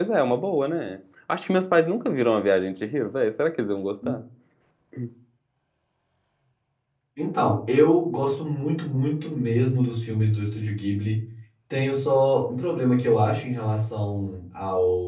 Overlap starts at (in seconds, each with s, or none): none